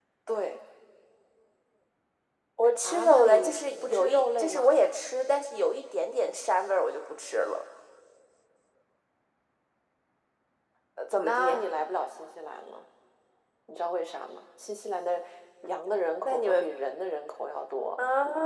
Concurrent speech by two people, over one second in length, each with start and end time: 2.8-4.7

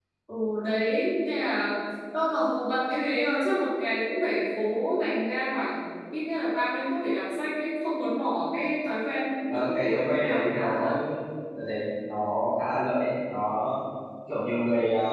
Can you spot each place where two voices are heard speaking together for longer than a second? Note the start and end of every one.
9.5-10.9

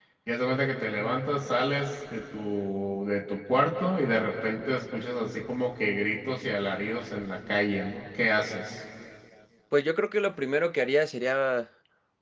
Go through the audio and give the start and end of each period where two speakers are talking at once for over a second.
none

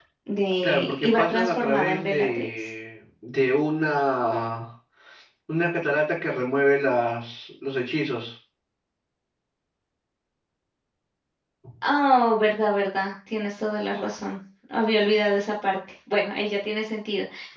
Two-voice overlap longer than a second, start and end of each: 0.6-2.7

